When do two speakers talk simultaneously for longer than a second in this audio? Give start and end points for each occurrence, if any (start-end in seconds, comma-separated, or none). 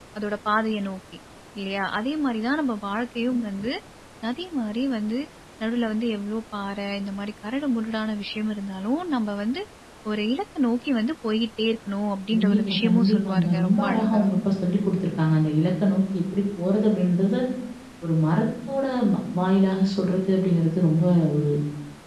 12.3-14.2